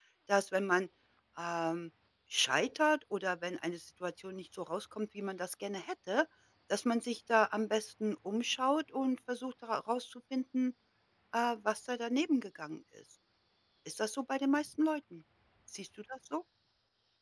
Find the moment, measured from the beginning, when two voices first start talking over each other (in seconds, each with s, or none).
none